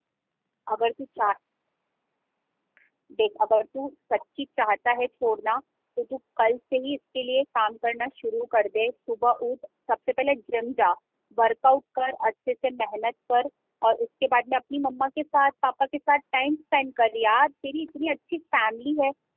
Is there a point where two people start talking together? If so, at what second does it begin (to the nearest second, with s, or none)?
none